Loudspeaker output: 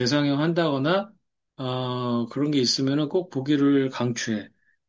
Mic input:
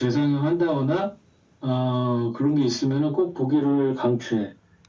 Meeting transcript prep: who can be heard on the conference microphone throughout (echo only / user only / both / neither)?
echo only